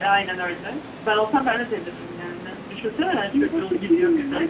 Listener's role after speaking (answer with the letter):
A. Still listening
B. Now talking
B